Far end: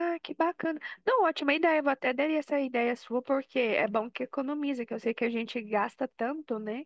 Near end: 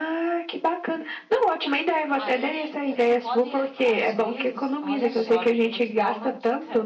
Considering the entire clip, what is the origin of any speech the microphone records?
both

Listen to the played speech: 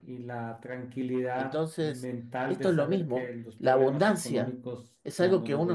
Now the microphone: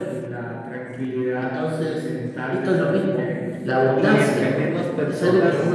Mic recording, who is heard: both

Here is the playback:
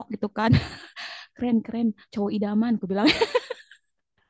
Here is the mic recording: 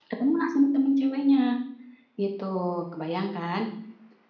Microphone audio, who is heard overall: user only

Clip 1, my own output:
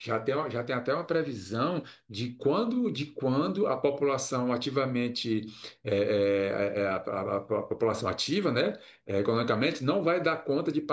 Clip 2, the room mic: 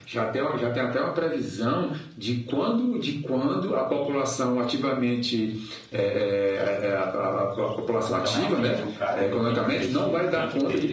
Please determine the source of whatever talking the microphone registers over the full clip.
both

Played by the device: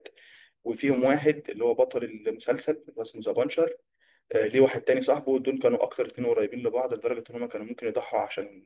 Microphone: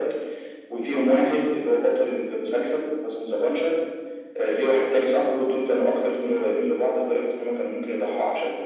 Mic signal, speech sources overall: echo only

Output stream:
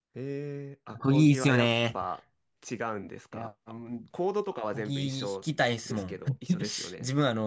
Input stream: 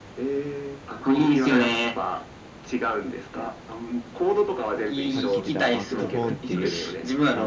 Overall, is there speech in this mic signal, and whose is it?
both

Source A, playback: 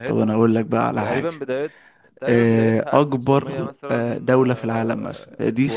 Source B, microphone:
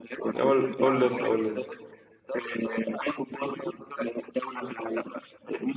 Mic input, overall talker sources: both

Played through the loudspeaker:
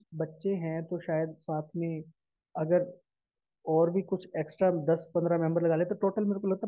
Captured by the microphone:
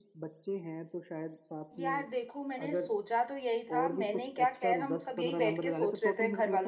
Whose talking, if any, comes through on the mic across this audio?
both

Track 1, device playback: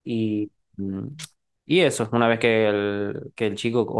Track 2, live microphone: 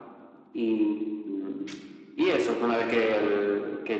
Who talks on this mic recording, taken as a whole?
echo only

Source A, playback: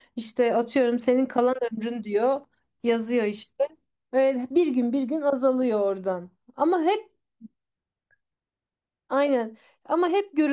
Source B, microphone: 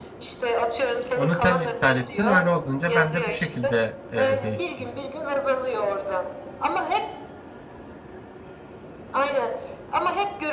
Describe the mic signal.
both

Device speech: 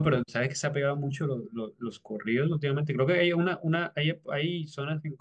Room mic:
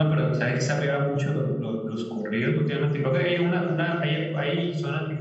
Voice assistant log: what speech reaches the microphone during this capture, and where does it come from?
echo only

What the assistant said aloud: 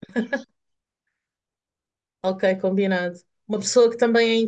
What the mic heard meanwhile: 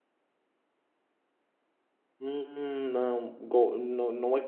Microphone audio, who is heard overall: user only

